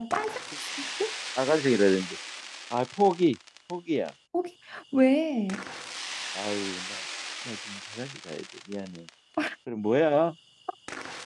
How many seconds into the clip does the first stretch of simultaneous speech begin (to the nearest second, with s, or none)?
none